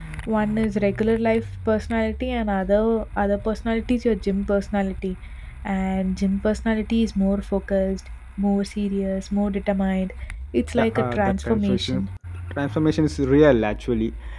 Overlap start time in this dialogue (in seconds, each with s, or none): 10.8 s